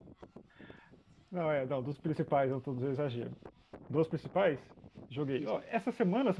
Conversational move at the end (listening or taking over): listening